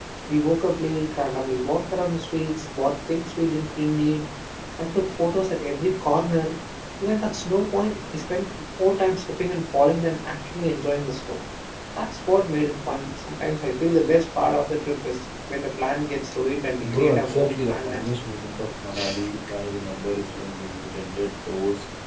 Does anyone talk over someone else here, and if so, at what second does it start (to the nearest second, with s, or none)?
17 s